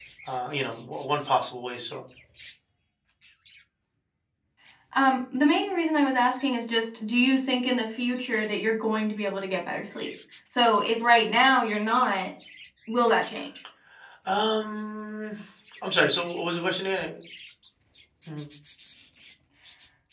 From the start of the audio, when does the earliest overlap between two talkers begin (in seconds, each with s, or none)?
none